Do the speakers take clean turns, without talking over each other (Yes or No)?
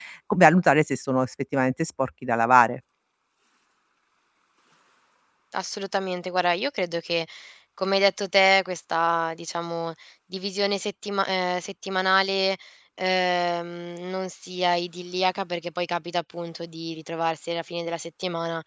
Yes